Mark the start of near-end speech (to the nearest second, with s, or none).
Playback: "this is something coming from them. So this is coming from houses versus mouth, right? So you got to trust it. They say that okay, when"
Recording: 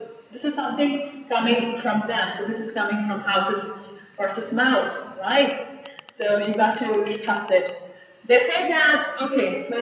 none